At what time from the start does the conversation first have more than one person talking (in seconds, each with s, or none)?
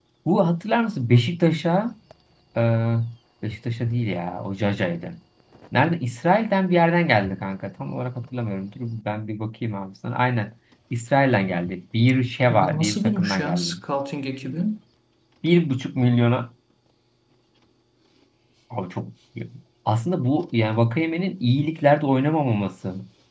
12.5 s